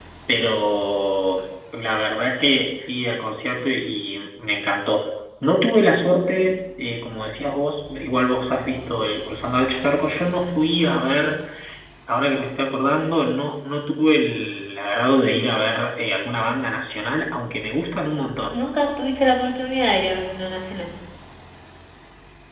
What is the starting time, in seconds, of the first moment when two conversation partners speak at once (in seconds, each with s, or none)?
none